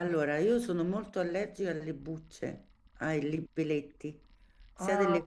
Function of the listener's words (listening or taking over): listening